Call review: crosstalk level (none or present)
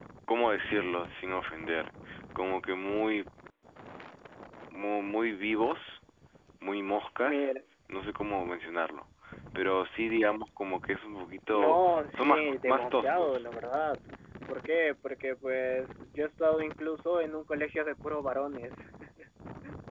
present